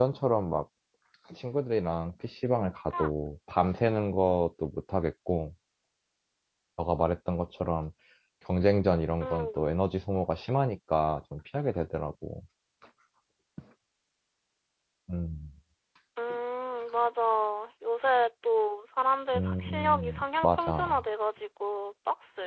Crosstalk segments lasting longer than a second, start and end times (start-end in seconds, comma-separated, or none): 19.4-21.0